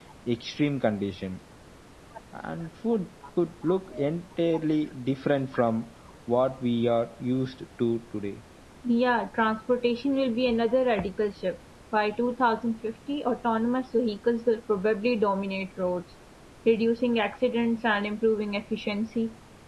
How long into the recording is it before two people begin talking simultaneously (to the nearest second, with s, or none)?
none